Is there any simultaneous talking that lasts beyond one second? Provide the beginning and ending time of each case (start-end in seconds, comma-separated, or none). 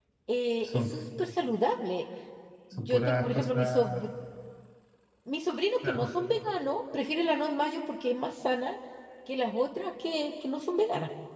2.7-4.1